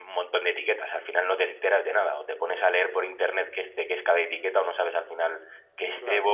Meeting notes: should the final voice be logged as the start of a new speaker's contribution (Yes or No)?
No